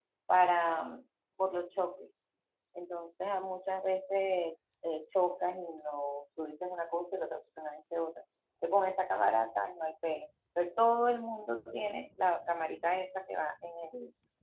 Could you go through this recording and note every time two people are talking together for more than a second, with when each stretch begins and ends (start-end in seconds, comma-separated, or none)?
none